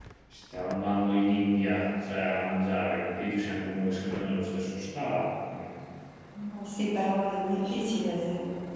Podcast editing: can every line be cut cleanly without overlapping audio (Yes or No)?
Yes